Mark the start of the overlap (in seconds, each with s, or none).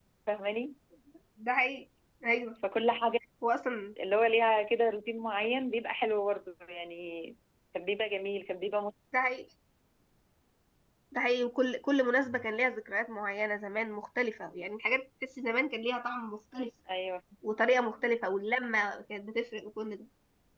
none